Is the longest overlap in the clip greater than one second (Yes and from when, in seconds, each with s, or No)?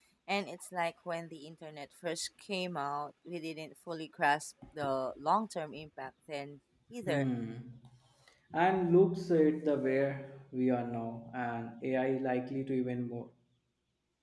No